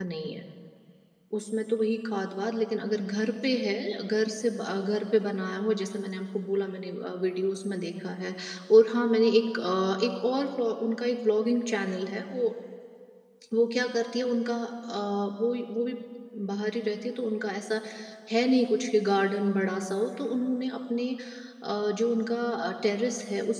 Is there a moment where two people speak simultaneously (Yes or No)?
No